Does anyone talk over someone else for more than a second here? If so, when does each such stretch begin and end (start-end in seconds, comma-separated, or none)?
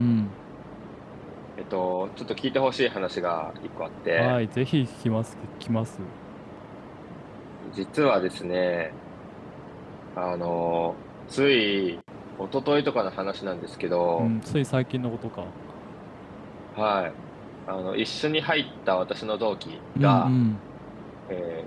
none